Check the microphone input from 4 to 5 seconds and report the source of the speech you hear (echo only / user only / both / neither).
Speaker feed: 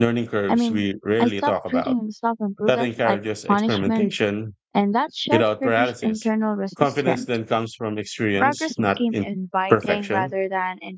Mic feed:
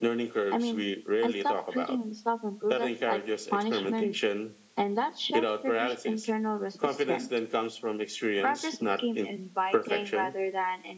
echo only